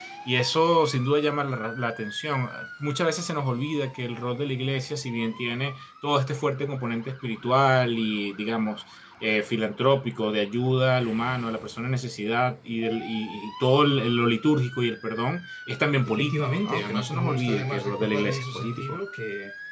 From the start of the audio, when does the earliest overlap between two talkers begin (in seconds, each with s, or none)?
16.1 s